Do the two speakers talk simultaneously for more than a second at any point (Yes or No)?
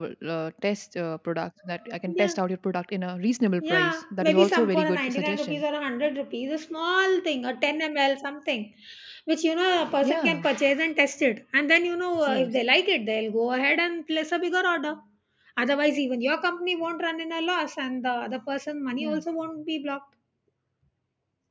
Yes